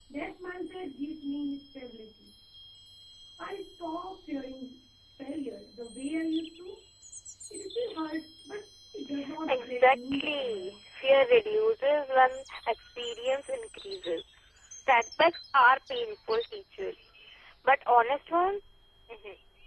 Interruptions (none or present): present